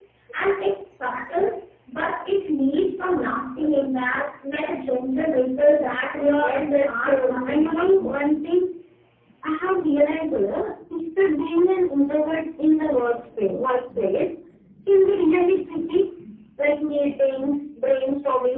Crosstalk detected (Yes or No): Yes